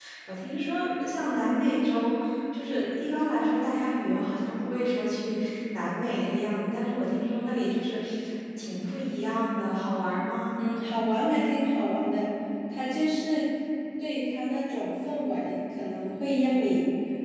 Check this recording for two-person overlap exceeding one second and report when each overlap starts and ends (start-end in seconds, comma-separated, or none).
none